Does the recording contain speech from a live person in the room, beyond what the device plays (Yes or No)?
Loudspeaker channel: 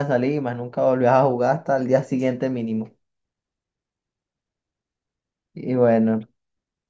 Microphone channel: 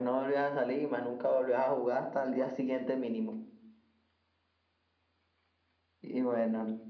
No